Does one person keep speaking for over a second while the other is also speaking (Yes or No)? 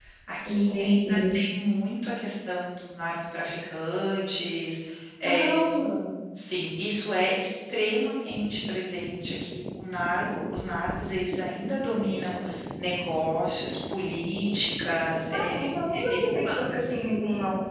Yes